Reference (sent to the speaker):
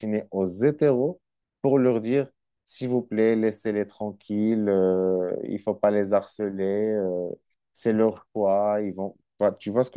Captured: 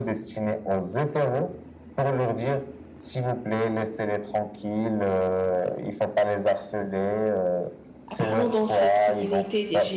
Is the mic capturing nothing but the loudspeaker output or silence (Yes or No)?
No